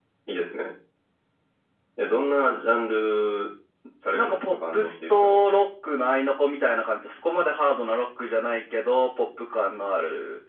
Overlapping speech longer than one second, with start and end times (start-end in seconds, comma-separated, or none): 4.1-5.4